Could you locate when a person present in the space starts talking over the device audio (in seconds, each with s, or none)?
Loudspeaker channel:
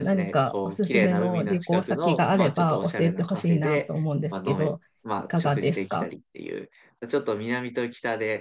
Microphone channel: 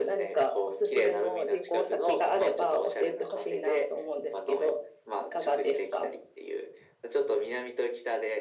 none